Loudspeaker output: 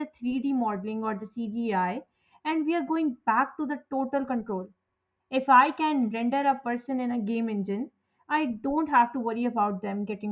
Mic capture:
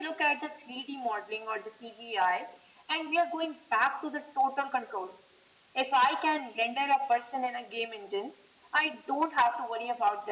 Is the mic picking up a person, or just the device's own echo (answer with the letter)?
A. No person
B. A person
A